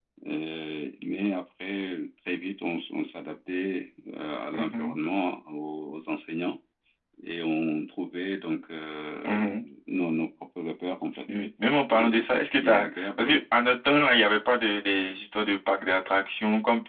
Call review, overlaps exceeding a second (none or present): present